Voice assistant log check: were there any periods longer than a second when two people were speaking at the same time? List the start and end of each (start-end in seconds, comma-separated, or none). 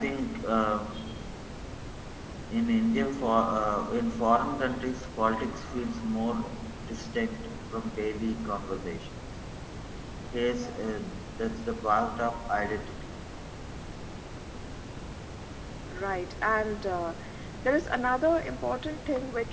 none